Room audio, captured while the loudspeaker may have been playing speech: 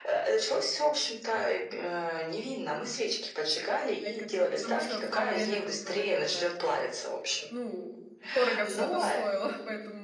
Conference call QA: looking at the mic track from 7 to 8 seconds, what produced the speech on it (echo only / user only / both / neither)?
both